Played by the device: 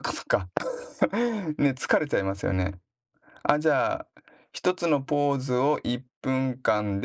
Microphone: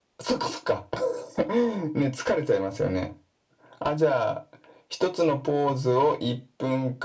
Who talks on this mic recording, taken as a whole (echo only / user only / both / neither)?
echo only